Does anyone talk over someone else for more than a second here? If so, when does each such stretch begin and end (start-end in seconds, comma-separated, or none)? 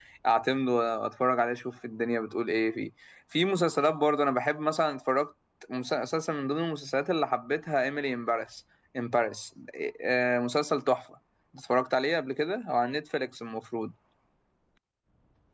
none